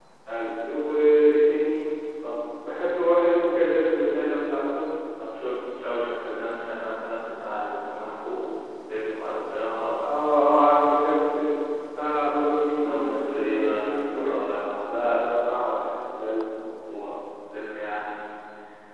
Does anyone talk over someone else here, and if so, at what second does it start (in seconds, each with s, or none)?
12.8 s